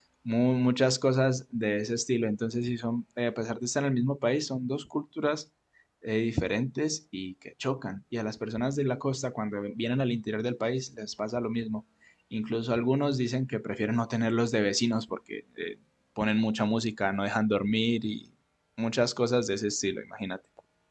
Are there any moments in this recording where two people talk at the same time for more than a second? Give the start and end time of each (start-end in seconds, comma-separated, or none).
none